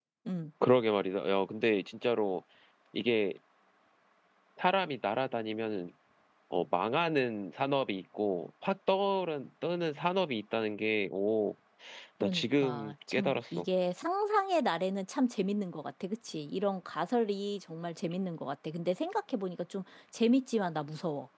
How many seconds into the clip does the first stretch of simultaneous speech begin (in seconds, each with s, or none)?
12.2 s